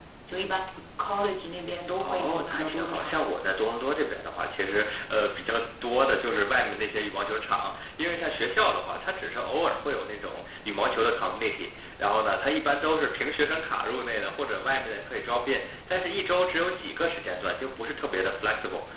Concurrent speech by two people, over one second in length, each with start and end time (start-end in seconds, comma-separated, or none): 2.0-3.4